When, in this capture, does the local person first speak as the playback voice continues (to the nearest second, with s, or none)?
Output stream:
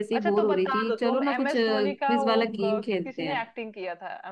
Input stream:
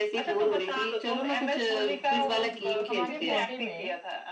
3 s